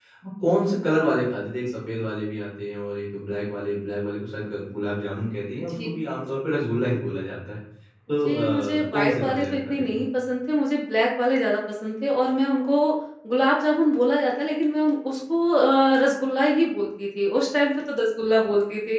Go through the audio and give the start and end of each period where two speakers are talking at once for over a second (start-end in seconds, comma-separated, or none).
8.2-10.0